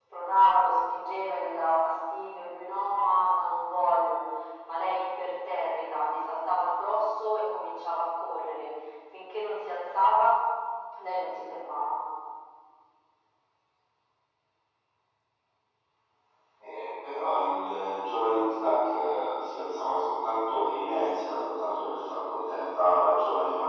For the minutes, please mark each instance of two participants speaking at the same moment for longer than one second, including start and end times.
none

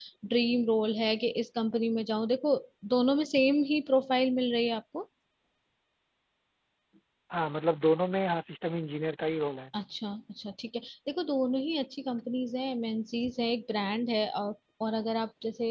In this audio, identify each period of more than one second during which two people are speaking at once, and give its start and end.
none

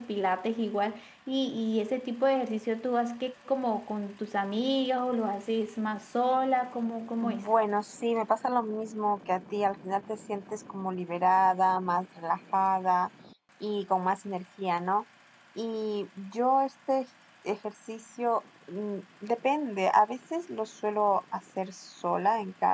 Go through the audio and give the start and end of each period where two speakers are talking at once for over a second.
none

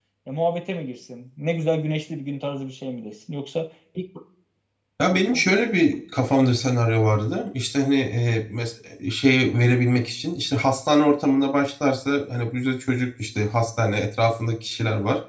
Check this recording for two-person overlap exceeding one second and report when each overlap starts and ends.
none

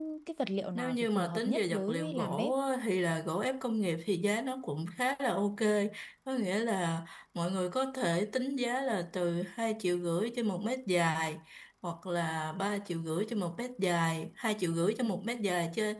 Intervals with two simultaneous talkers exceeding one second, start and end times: 0.8-2.5

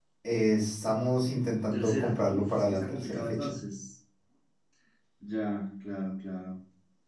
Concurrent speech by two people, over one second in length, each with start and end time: 1.7-3.5

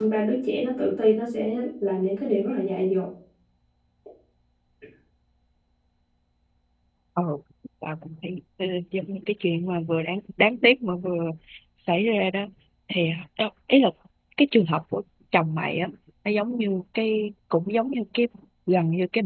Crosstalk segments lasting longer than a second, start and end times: none

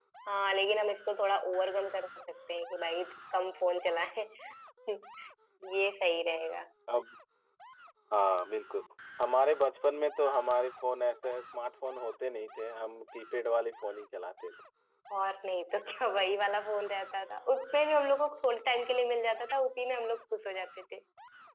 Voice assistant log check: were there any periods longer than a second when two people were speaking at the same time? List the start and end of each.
none

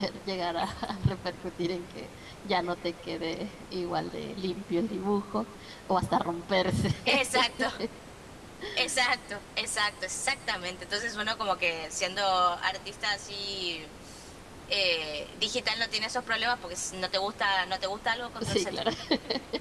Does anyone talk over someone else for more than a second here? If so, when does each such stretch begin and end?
none

